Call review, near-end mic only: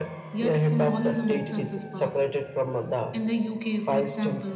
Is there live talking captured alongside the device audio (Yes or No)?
No